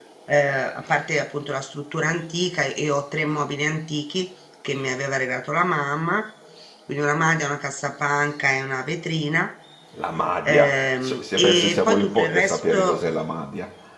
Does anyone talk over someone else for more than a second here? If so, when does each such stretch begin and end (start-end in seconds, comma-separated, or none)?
10.4-13.0